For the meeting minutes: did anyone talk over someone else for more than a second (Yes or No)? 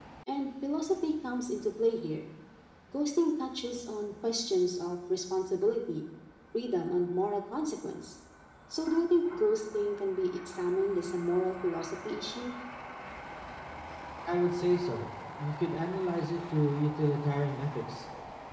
No